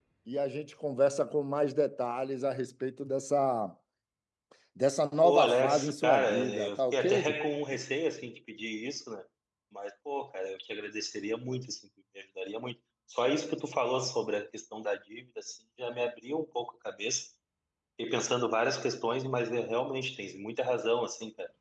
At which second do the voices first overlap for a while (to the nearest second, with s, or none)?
5 s